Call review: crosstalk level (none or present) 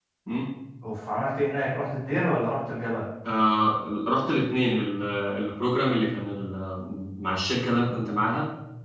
none